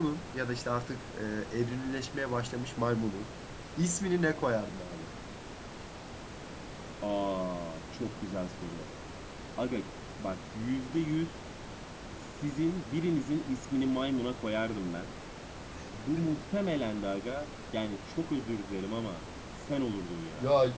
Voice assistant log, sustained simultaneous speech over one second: none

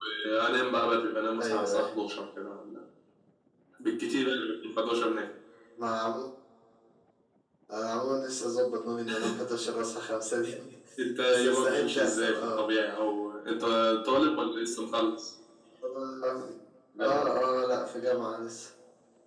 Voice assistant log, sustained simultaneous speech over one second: present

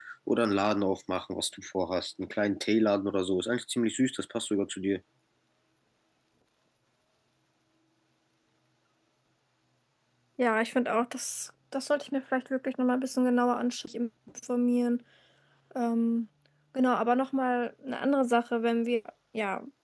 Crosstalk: none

